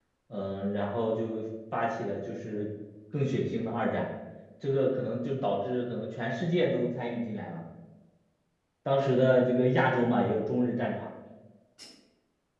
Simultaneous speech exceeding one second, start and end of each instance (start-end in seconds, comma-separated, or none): none